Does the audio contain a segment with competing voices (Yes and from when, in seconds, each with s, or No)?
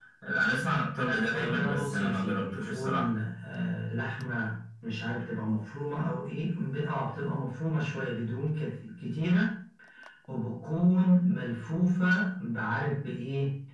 Yes, from 1.0 s